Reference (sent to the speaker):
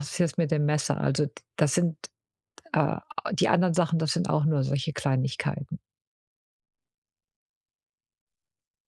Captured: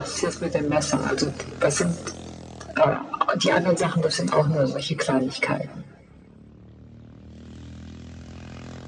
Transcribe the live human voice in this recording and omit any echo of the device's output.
none

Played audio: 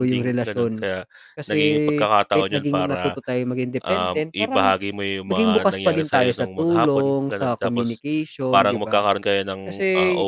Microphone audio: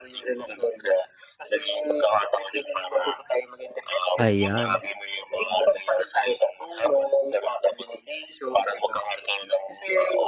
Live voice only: ayan.

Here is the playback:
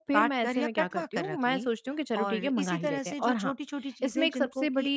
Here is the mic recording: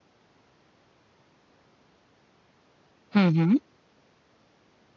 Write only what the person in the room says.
हुँ, हुँ।

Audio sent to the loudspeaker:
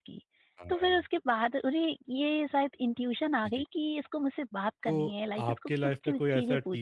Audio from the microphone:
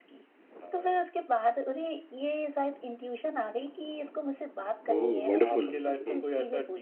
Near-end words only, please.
ओह वंडरफुल, हुँ,

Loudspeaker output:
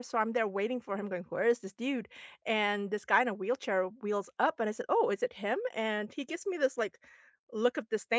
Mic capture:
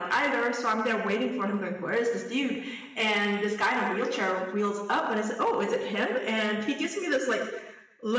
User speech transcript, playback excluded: none

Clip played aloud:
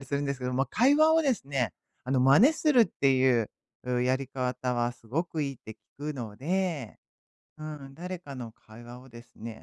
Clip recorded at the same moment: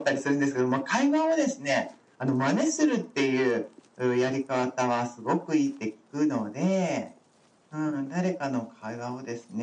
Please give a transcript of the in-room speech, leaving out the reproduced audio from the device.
none

